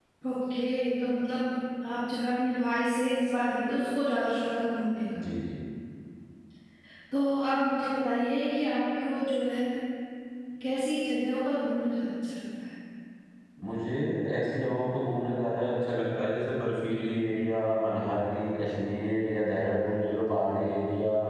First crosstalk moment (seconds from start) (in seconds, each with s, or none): none